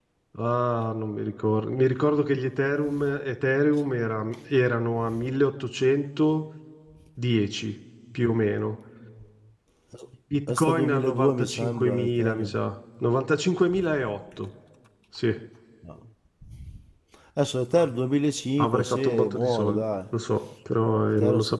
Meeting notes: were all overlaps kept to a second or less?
No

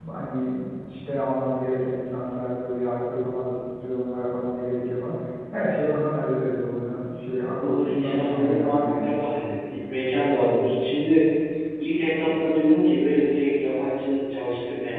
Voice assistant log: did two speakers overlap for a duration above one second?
Yes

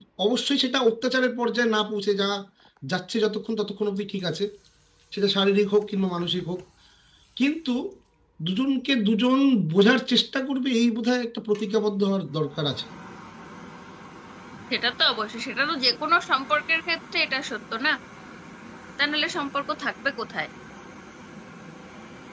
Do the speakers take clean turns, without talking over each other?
Yes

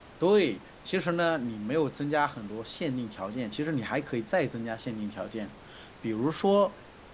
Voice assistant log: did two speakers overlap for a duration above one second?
No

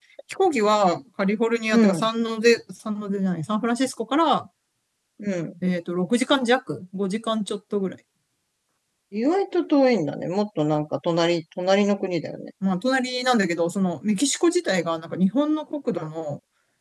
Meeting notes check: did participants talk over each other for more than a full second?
No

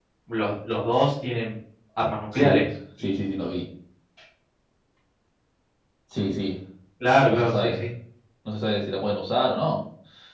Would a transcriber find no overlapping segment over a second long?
Yes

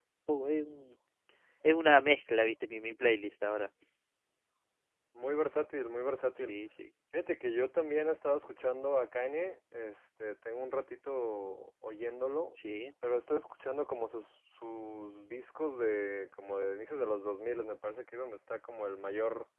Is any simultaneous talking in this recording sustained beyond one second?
No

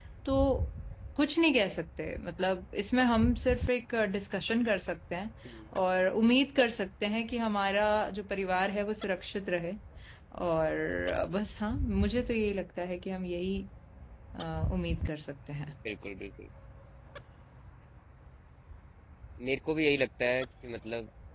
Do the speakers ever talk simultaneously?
No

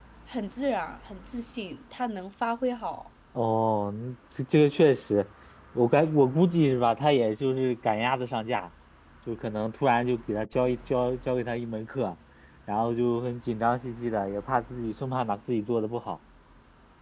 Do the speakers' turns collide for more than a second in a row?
No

